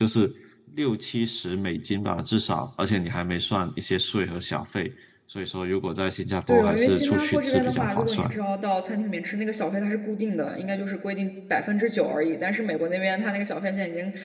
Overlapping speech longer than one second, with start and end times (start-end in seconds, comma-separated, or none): 6.5-8.3